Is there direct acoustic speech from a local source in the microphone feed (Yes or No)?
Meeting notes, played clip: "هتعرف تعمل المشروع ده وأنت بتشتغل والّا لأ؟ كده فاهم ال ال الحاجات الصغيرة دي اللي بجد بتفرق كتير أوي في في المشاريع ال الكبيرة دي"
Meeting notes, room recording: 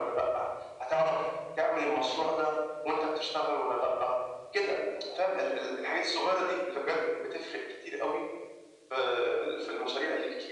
No